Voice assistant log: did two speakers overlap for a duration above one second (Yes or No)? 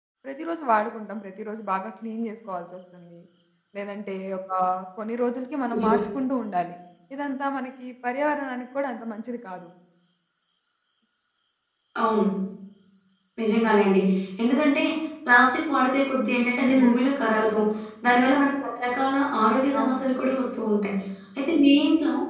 No